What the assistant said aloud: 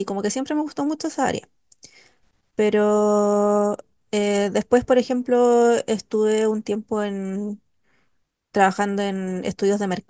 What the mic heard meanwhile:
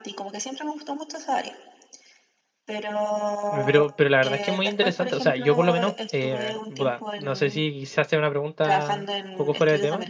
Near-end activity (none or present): present